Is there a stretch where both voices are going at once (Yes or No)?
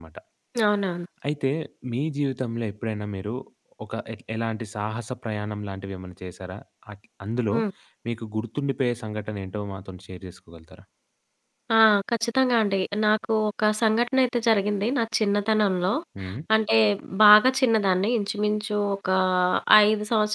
No